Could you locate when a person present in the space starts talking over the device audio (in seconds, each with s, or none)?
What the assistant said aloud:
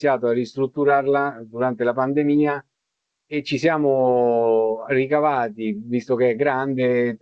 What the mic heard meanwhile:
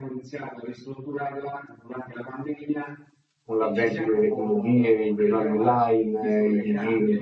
3.5 s